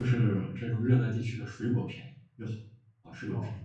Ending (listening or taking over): taking over